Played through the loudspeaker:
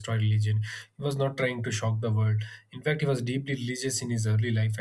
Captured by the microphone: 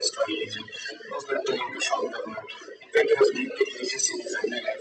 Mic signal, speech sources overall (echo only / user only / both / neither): echo only